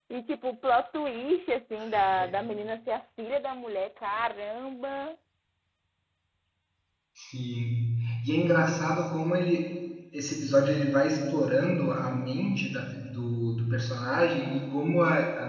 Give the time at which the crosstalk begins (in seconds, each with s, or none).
none